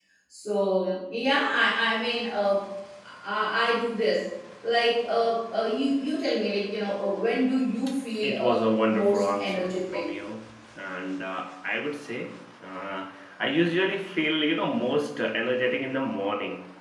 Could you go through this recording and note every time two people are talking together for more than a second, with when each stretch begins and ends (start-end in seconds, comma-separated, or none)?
8.2-10.0